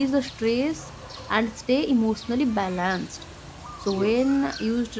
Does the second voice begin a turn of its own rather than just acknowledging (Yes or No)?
No